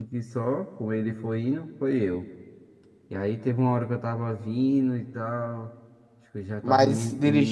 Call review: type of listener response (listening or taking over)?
listening